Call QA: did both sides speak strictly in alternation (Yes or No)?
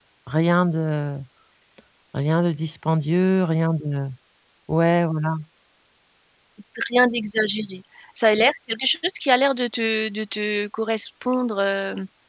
Yes